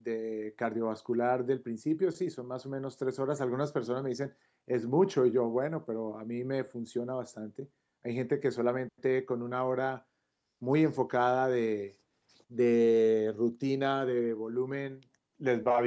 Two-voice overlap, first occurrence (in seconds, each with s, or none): none